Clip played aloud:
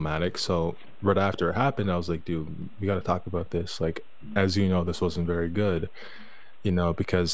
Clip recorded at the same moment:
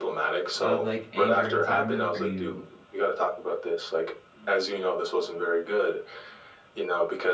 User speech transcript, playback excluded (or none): of, like, anger and entitlement, like, are you,